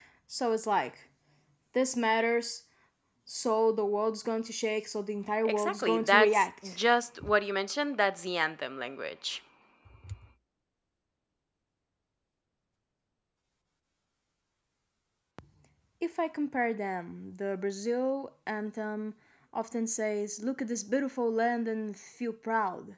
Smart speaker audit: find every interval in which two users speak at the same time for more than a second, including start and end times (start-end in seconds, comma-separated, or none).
5.5-6.8